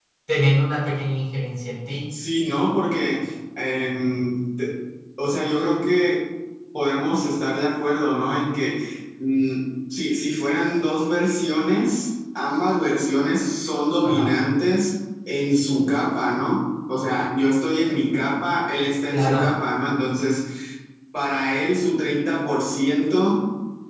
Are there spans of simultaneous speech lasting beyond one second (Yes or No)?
No